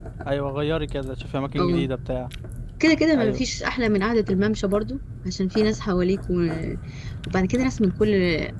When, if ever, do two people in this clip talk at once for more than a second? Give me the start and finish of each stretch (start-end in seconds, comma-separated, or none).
none